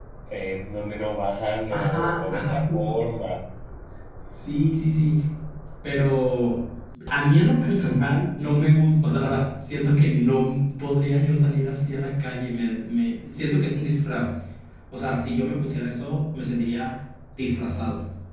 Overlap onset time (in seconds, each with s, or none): 1.7 s